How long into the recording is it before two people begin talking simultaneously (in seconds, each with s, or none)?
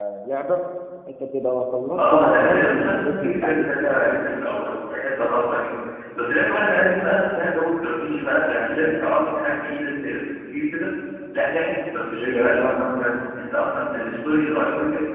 2.0 s